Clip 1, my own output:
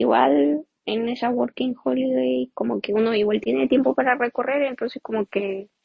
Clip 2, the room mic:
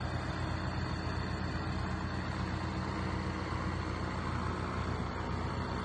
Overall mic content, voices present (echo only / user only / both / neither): neither